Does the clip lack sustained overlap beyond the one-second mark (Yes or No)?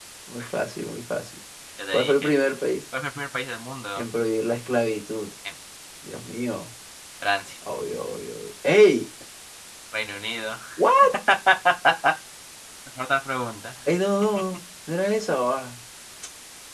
Yes